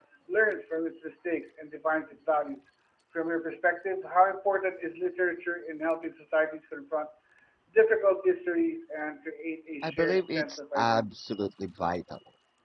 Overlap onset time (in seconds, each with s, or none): 9.8 s